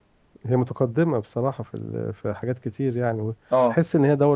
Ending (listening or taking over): listening